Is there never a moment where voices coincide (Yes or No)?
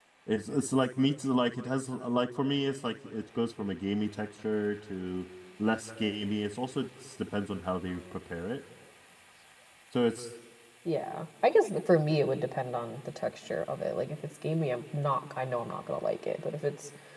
Yes